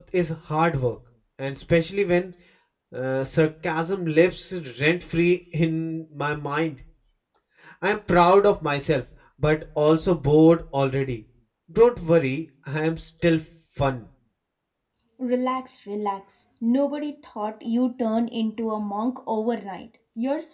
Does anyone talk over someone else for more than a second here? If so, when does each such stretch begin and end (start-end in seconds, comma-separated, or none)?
none